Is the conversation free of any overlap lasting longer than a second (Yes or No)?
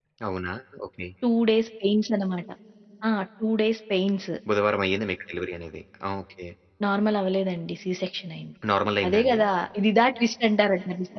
Yes